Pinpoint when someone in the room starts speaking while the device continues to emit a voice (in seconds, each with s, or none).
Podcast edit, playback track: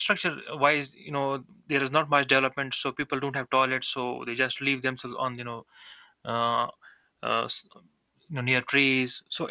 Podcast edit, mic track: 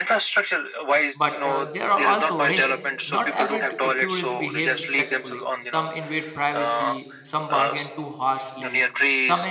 1.1 s